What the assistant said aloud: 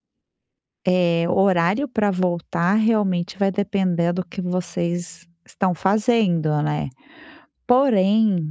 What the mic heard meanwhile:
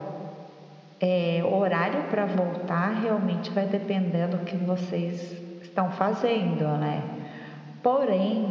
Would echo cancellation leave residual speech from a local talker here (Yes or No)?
No